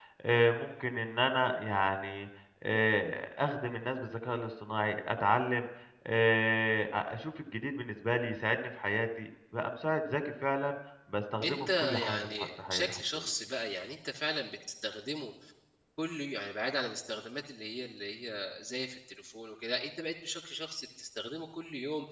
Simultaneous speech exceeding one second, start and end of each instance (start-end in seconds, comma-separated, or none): 11.4-13.3